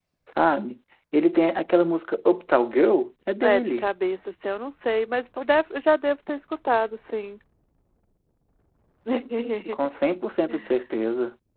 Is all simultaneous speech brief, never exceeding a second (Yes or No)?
Yes